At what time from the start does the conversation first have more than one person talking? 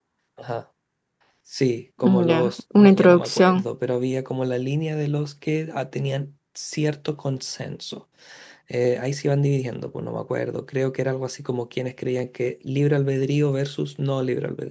2.0 s

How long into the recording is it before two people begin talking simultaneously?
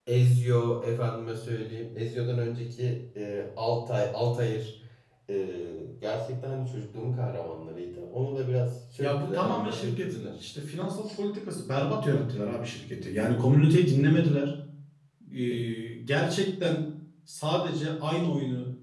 9.0 s

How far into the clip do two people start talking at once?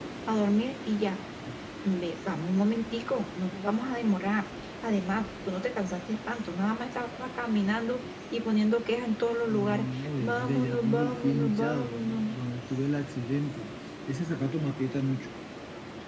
9.5 s

